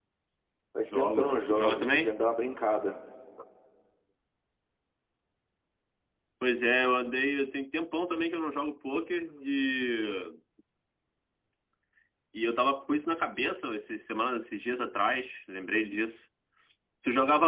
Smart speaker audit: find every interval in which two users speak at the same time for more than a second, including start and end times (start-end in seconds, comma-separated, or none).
0.8-2.1